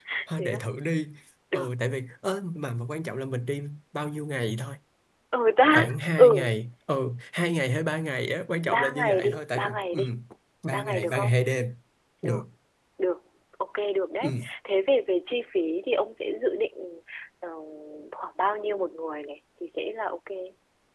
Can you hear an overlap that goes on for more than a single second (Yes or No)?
Yes